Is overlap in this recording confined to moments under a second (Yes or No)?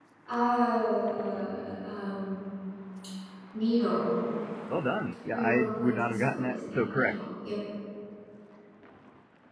No